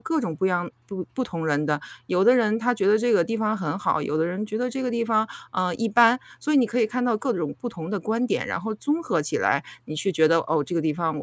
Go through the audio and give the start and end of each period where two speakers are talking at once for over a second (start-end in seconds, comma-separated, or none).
none